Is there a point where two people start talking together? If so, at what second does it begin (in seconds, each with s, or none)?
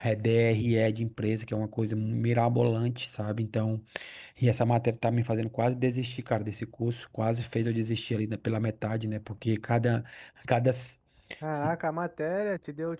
none